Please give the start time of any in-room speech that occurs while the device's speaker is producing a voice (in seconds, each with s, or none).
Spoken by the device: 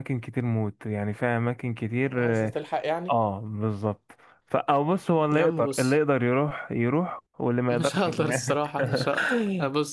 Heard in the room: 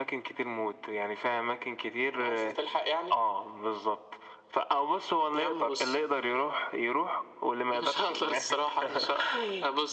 none